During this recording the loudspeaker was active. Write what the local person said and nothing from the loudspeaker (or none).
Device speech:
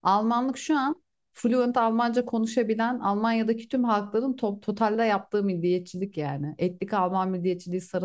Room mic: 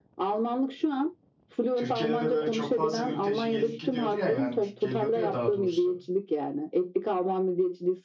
Türkiye'de de böyle çok fazla mülteci gelip gidiyordu ya yani geliyordu ya daha doğrusu.